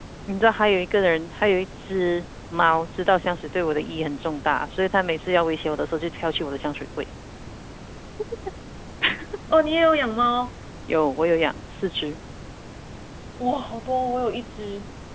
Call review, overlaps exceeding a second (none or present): none